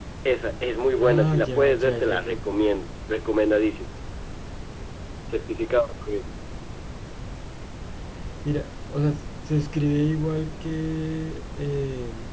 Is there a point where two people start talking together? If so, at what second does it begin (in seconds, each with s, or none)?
1.0 s